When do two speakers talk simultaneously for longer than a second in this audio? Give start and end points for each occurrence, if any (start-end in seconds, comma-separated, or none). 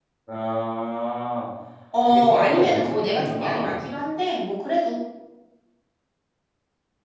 2.0-3.8